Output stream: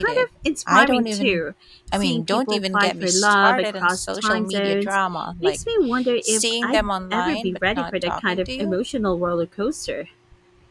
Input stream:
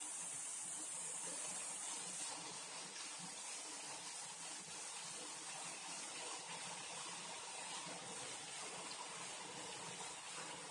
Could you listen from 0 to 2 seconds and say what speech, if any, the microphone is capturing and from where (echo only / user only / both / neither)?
neither